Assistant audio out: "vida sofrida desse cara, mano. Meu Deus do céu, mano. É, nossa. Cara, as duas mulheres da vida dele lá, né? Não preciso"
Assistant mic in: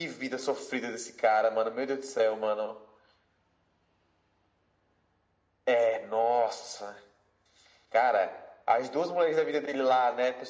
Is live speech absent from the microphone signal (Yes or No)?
Yes